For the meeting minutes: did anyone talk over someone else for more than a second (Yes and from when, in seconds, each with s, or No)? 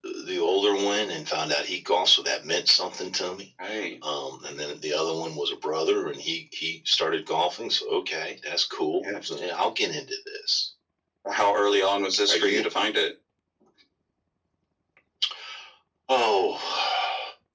No